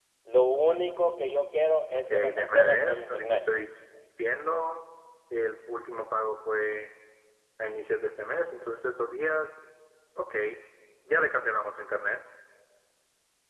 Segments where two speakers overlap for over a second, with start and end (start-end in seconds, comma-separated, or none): 1.9-3.4